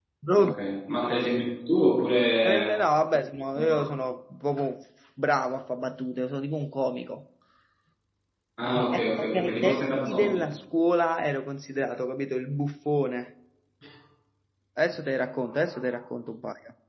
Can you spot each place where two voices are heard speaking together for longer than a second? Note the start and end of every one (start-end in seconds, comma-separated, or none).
8.9-10.4